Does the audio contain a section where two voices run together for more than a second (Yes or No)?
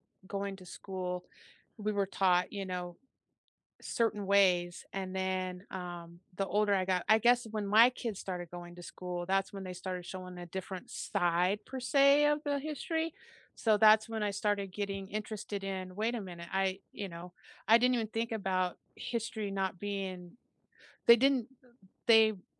No